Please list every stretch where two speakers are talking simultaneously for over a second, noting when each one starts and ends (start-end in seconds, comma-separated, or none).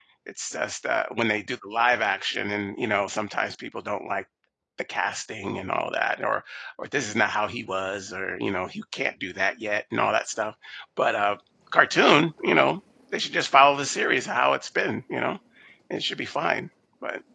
none